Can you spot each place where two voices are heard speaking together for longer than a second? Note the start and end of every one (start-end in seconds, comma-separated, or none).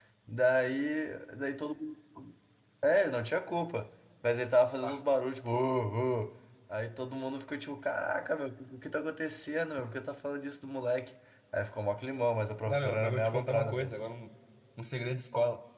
12.7-13.9